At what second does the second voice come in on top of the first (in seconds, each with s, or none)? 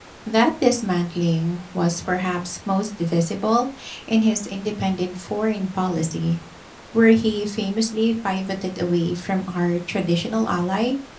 none